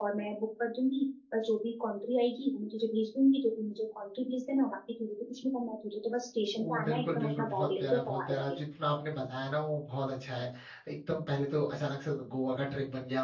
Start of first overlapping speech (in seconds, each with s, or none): 6.6 s